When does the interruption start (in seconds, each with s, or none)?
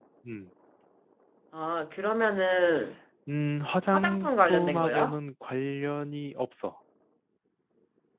3.9 s